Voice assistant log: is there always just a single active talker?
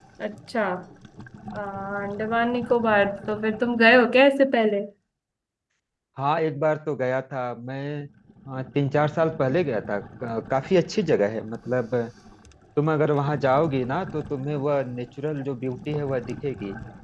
Yes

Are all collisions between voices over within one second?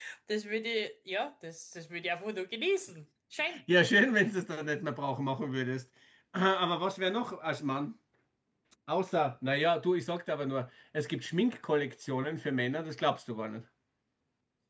Yes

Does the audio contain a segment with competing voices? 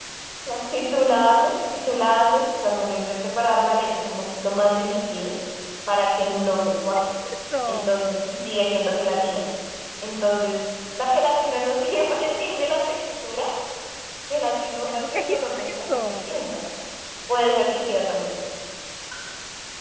Yes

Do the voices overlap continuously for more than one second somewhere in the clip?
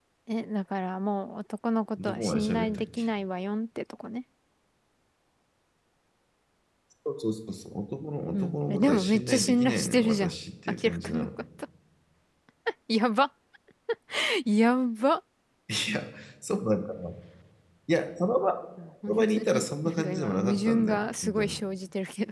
Yes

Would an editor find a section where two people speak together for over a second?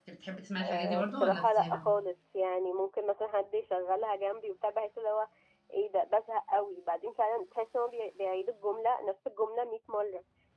Yes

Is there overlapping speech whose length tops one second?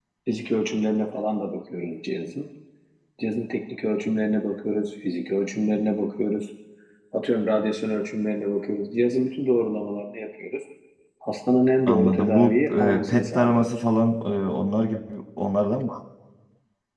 Yes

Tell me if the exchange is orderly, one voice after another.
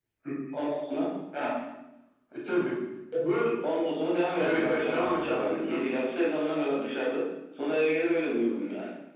No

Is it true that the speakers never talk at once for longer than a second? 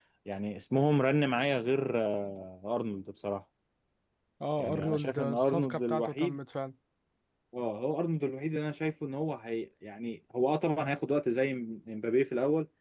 No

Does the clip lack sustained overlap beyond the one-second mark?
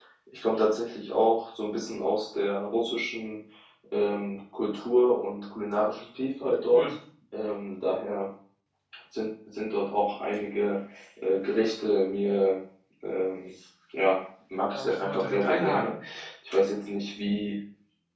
No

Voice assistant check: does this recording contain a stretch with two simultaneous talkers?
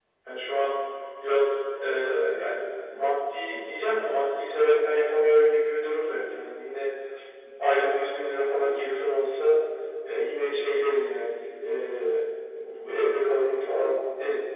No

